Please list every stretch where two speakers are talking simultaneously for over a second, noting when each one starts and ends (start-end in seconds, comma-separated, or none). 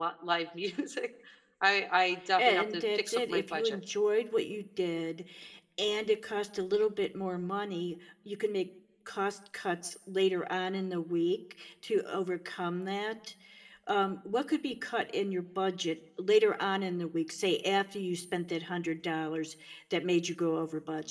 2.4-3.8